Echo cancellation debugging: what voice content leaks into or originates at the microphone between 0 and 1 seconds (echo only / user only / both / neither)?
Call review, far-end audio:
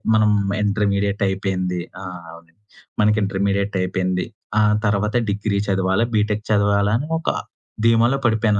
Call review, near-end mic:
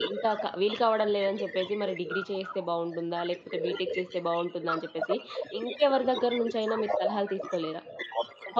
both